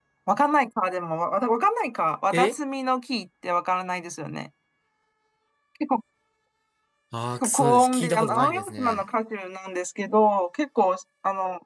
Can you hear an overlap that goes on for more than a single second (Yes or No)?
Yes